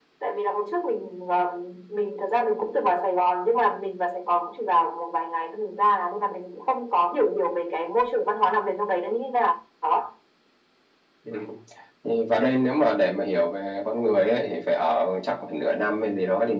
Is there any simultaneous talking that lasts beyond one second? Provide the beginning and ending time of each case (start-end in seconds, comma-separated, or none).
none